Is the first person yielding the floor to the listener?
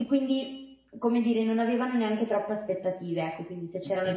Yes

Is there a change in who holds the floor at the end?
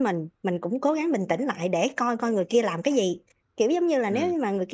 No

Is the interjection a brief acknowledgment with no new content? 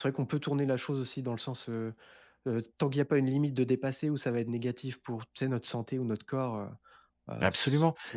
No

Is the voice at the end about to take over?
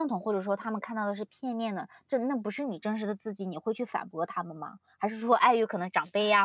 No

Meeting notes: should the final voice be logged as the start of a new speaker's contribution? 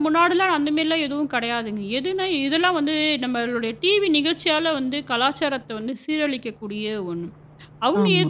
Yes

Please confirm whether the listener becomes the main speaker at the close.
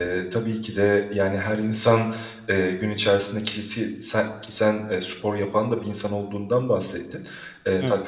No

